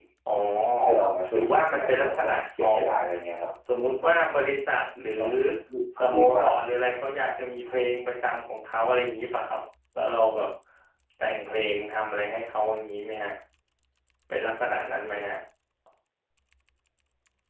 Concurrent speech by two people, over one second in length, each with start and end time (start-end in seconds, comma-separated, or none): 1.3-2.8